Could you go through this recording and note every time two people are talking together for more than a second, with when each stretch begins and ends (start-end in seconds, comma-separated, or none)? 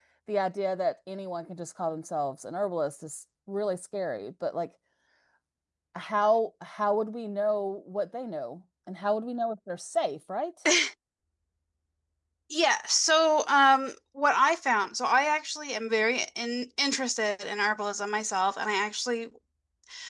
none